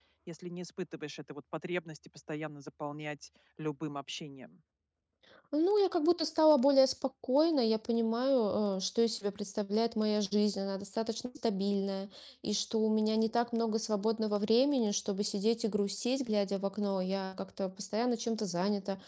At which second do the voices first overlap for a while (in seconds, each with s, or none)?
none